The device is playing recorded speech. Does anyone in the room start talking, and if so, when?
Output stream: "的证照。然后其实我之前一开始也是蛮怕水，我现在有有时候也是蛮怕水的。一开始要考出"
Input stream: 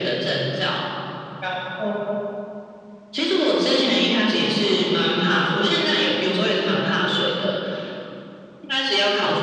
none

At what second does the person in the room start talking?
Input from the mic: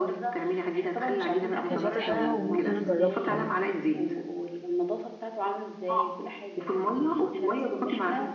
1.7 s

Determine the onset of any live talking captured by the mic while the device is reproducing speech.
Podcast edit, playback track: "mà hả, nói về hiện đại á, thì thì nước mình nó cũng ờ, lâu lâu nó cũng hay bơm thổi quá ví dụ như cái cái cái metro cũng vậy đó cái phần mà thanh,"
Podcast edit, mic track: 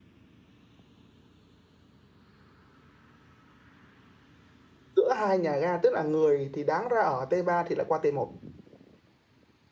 5.0 s

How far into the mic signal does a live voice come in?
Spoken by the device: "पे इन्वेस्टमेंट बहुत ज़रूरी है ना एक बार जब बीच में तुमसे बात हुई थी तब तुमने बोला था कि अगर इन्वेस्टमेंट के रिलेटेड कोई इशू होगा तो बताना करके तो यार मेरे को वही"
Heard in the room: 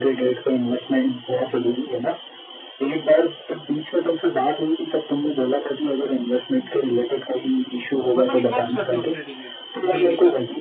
8.2 s

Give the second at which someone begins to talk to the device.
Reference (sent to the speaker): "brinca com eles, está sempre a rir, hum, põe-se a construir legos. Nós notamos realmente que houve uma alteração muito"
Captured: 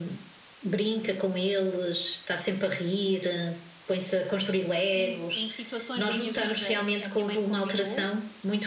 4.9 s

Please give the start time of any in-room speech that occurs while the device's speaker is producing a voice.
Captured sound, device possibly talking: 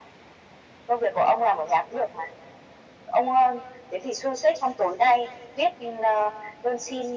none

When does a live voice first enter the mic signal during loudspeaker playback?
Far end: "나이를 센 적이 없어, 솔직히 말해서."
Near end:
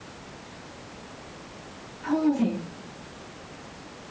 2.0 s

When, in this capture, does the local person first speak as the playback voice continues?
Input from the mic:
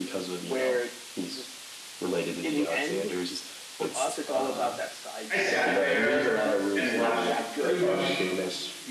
5.3 s

